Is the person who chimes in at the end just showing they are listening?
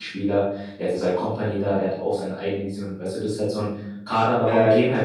Yes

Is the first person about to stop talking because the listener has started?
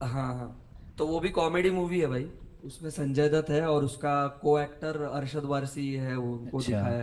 Yes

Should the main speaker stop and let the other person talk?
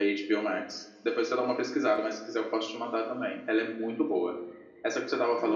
No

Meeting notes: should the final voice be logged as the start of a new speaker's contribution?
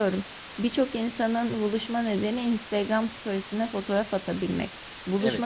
No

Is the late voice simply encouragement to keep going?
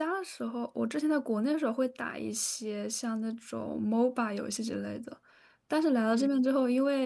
Yes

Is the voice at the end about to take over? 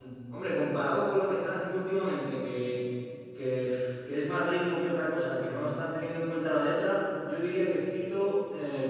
No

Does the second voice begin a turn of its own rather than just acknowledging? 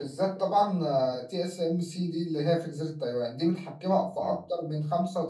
No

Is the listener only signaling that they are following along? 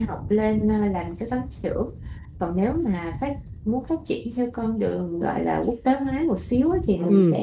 Yes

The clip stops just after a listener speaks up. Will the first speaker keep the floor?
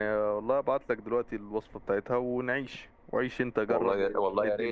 No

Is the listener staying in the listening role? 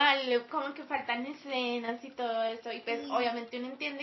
Yes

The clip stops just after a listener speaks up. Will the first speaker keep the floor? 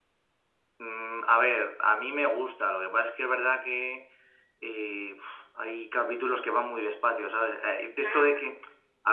Yes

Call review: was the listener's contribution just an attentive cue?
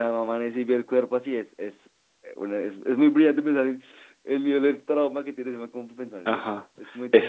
No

